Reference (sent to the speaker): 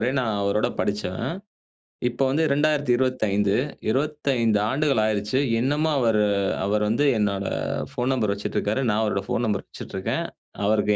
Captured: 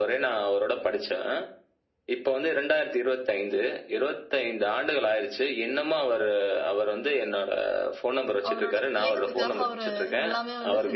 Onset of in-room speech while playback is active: 8.5 s

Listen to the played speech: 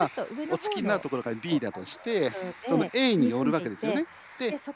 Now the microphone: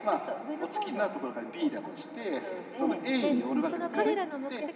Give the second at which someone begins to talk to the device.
3.2 s

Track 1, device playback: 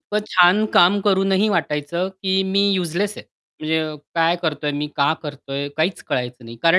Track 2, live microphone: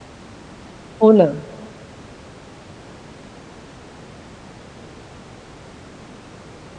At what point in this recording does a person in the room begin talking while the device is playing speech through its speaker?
1.0 s

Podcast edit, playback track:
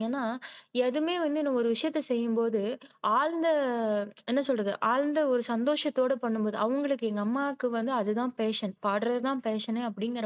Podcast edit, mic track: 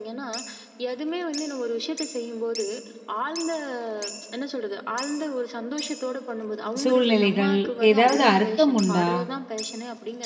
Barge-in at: 6.8 s

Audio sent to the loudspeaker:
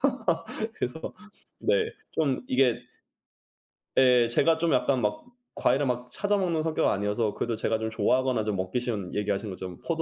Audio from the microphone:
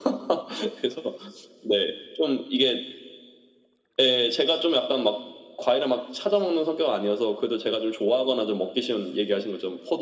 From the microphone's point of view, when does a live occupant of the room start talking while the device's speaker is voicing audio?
none

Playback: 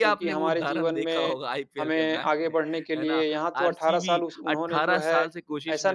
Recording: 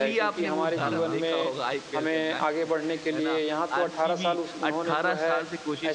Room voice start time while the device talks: 0.8 s

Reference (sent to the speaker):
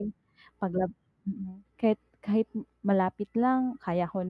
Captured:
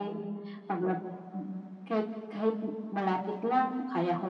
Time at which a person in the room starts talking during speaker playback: none

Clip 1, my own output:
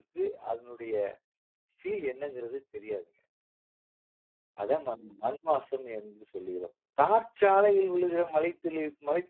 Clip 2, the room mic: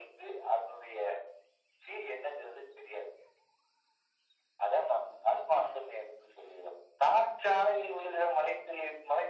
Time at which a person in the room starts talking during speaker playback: none

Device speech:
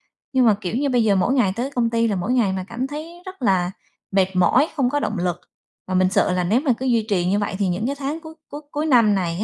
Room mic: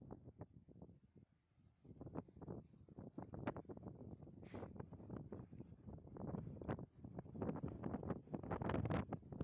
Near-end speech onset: none

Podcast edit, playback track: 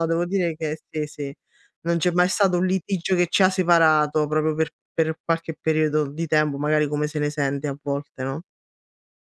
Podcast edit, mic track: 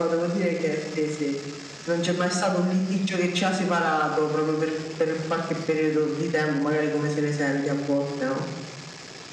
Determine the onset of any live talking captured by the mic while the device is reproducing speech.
none

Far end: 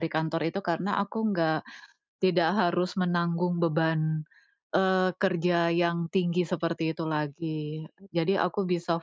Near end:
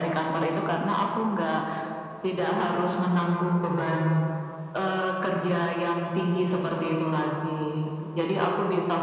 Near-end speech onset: none

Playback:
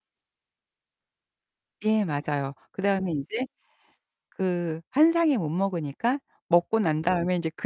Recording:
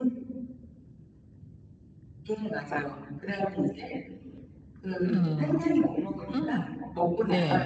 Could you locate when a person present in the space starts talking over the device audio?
5.1 s

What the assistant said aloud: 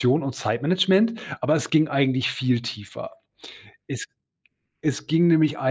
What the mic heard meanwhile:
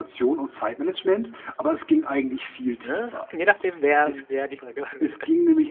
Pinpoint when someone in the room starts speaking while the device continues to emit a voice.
2.8 s

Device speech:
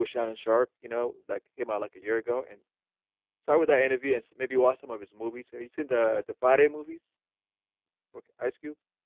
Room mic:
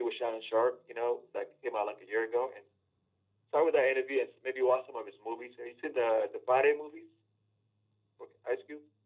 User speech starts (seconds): none

